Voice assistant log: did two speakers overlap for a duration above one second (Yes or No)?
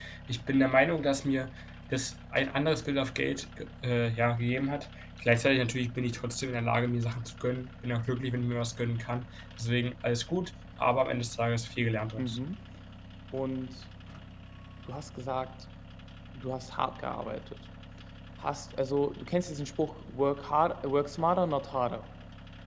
No